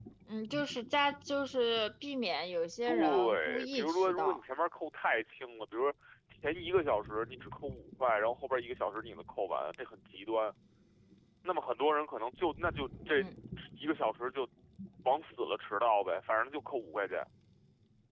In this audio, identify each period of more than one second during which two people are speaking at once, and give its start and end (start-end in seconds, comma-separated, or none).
2.9-4.4